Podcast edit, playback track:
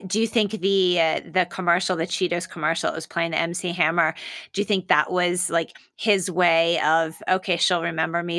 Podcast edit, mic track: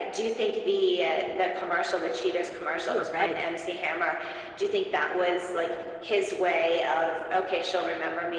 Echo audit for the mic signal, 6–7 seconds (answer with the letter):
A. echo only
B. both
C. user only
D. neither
A